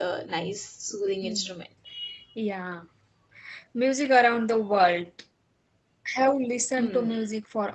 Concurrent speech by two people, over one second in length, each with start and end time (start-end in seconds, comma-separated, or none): none